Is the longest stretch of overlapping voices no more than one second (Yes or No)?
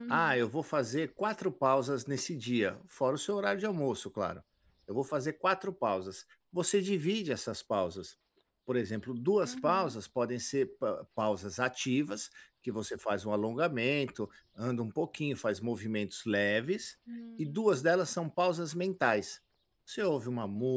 Yes